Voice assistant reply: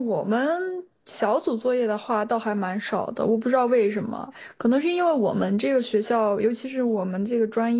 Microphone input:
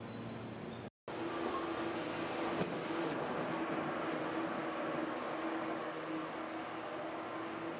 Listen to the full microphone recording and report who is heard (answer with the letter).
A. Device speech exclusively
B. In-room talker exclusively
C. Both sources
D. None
D